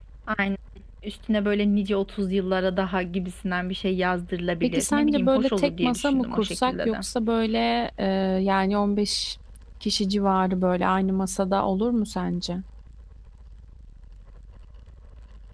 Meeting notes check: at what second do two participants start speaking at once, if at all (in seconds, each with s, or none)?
4.6 s